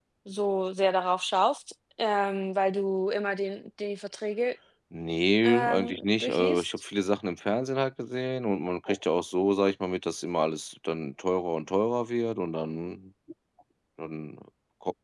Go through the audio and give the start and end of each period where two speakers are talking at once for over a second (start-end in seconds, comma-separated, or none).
5.4-6.7